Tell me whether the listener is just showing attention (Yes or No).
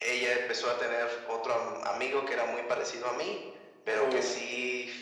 Yes